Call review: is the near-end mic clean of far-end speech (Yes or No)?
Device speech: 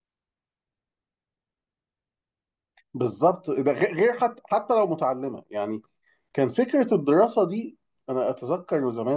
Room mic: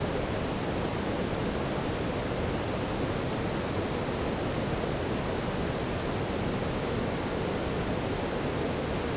Yes